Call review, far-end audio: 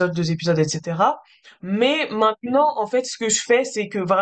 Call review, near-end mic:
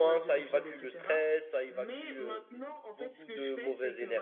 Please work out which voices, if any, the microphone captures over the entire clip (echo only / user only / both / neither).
both